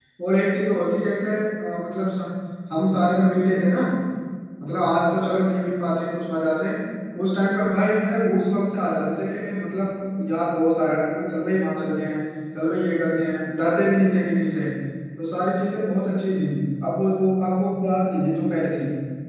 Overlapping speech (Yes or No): No